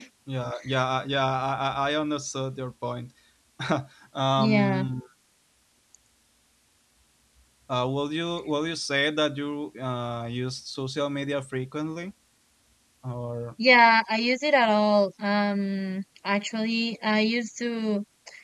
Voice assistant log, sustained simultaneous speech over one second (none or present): none